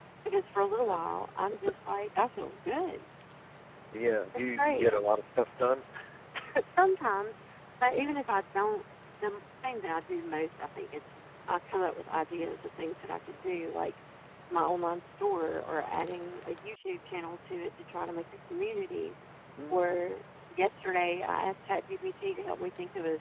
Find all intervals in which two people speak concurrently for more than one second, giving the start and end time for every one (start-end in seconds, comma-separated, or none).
none